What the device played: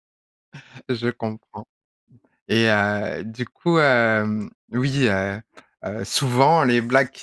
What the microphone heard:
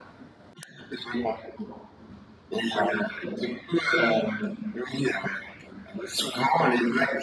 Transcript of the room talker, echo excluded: none

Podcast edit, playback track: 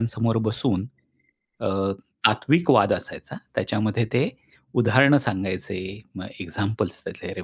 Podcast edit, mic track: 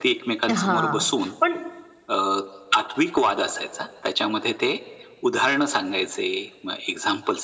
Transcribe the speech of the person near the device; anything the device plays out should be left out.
हां. पण

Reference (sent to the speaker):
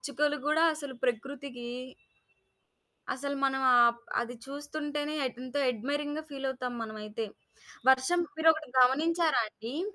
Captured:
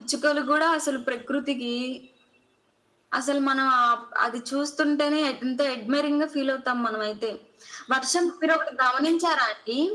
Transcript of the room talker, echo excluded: none

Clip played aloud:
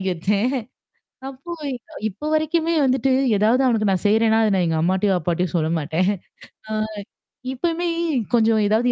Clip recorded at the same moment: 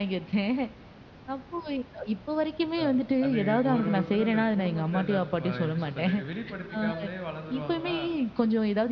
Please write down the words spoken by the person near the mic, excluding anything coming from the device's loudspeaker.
இதான் அது ஒரு ஒருத்தர் அந்த குடும்பத்தில அந்த அ எப்படி சொல்றது வெளிப்படுத்திக்காமலே வளந்துருவாங்களா,

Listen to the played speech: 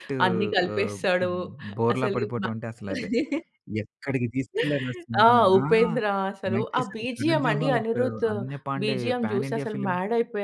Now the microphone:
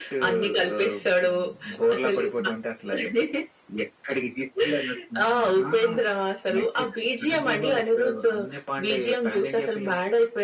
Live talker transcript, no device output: none

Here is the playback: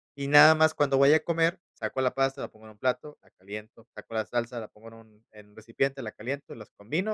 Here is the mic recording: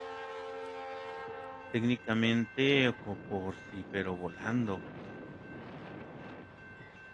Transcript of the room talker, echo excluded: técnicamente co por sí, pero volando.

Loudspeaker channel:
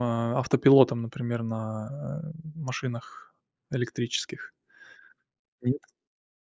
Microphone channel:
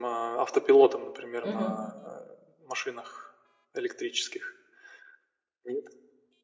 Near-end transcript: Мгм.

